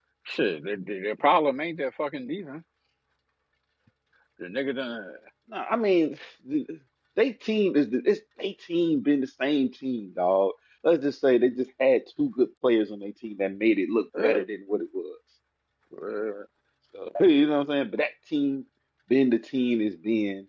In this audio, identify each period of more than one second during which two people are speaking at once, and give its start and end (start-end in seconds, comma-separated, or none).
none